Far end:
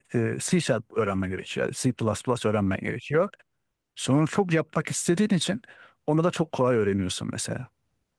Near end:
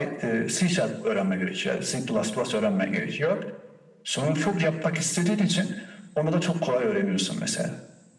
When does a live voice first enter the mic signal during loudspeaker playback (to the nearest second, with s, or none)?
none